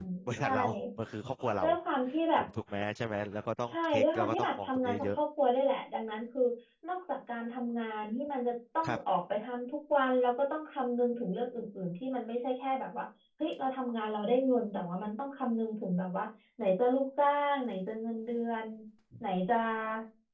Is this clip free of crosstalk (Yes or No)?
No